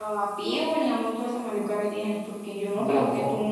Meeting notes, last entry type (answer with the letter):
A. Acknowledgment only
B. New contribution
A